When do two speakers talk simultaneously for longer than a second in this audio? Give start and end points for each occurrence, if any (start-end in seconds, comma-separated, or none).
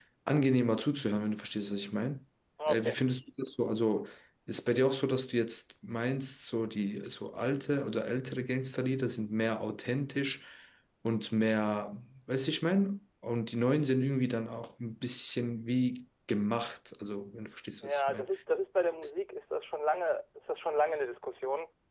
none